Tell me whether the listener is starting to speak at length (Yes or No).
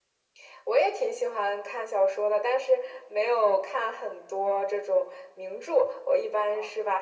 No